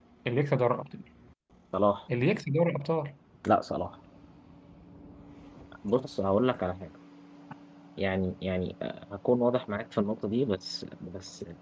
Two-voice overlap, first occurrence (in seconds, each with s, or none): none